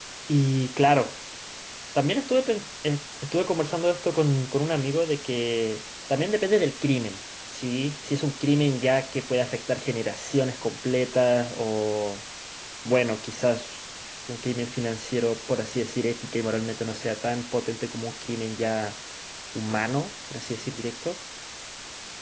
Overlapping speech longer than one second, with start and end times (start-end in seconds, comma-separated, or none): none